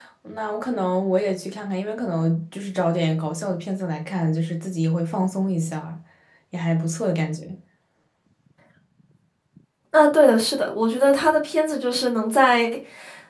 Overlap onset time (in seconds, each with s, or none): none